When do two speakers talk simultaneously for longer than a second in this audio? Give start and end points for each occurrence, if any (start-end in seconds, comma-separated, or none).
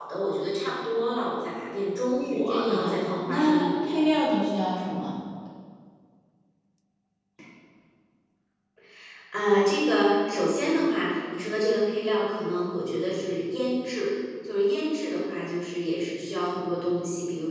2.3-3.9